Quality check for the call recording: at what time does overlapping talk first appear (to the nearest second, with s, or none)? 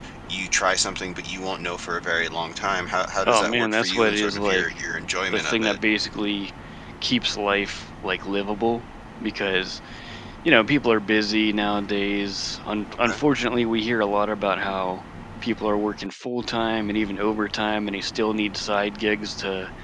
3 s